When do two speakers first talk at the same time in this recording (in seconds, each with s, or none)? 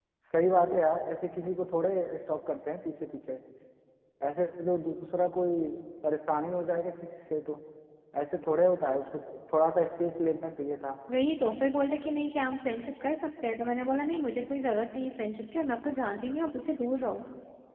none